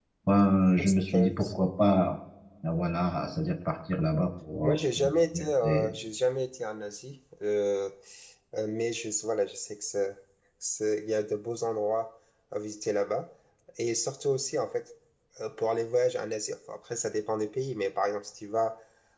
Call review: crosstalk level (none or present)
present